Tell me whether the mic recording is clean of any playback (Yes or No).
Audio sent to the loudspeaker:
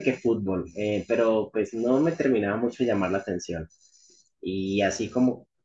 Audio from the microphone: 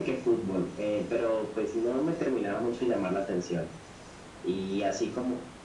No